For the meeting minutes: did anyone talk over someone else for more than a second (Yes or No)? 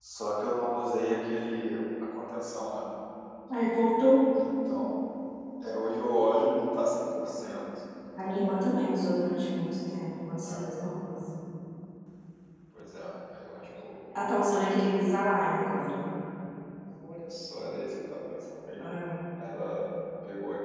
No